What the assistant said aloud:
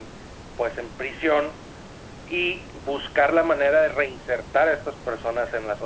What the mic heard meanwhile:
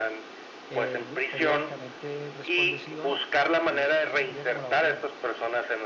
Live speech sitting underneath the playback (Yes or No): Yes